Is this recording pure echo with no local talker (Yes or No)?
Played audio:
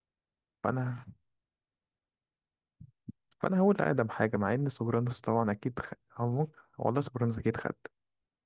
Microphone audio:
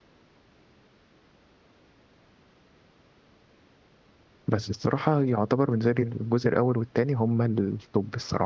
No